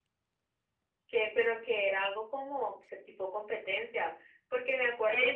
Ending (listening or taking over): taking over